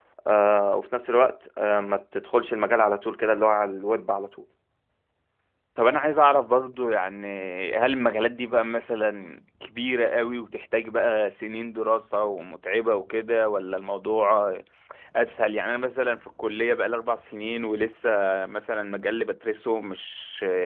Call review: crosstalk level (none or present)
none